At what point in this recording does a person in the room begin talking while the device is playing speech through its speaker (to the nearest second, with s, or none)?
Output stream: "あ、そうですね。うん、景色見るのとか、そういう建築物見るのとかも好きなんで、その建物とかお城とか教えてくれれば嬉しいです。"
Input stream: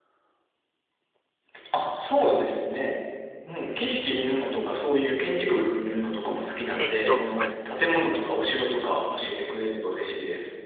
7 s